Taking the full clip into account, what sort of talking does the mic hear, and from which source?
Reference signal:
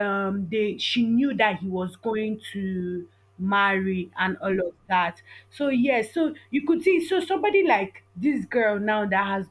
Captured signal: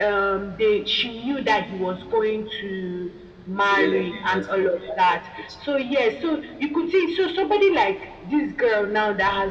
both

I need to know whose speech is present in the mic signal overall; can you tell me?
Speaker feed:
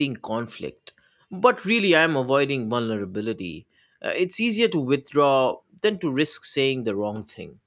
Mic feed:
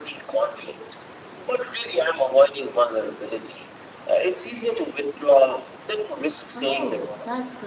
both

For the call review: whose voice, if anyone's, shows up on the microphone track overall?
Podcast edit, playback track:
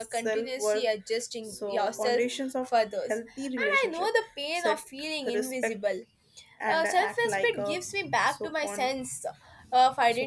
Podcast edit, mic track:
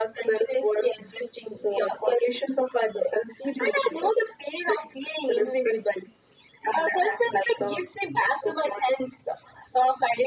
echo only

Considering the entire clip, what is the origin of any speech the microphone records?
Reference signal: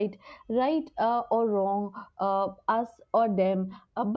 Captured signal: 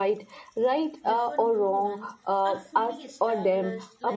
both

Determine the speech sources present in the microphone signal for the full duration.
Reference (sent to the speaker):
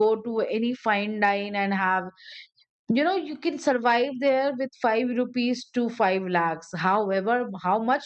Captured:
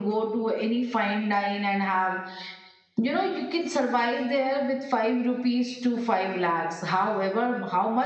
echo only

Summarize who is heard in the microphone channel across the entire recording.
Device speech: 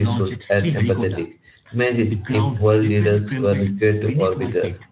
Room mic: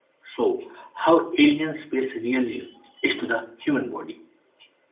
user only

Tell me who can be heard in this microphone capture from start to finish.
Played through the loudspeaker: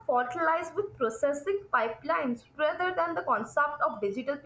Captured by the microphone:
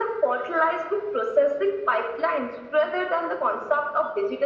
echo only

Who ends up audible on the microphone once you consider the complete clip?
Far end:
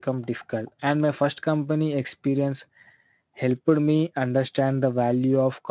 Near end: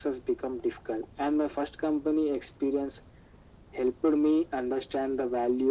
echo only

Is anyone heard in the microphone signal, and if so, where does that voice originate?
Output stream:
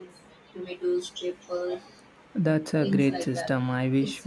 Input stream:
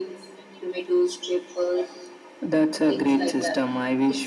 echo only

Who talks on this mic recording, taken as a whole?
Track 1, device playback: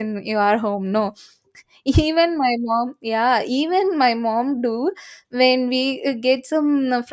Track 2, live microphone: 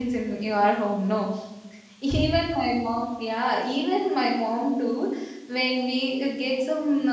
echo only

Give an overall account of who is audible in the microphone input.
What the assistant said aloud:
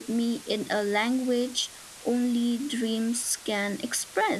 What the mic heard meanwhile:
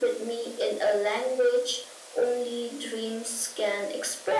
echo only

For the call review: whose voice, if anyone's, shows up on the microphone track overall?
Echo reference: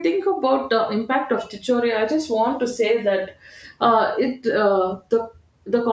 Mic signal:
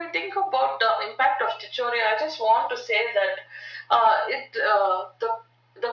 echo only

